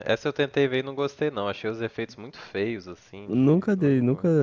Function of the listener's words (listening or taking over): taking over